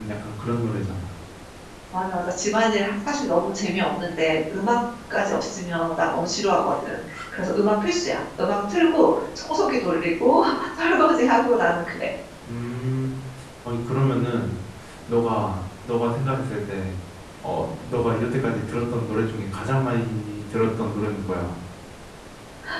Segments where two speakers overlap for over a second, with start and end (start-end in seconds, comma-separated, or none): none